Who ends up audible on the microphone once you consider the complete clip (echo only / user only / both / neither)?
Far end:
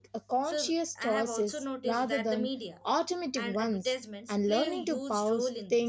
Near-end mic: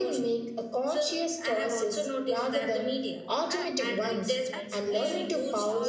both